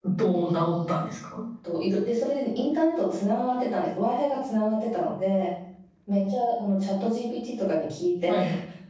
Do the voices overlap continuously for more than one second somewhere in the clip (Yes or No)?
No